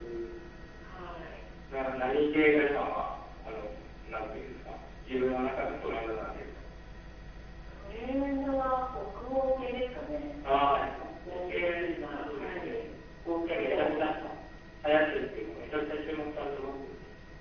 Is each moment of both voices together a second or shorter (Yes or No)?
No